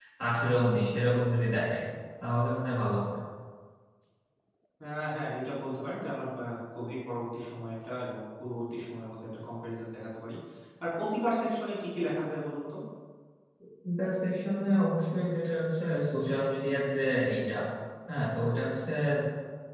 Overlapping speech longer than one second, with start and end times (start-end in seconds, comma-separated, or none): none